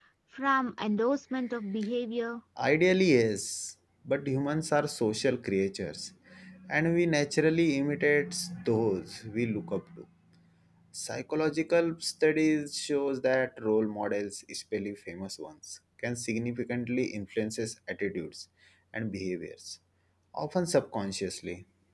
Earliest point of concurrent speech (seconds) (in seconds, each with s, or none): none